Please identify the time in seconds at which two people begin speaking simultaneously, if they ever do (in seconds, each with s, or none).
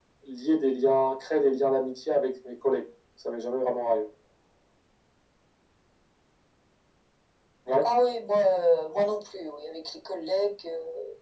none